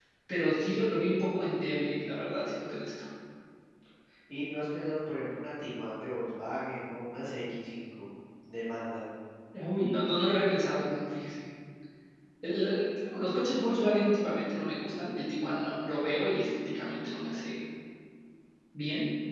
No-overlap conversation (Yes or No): Yes